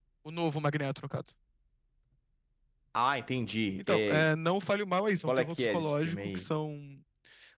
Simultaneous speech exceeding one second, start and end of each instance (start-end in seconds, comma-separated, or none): 5.3-6.5